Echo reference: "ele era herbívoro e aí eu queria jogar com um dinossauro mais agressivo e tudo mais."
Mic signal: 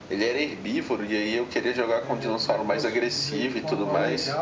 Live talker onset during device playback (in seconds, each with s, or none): 2.0 s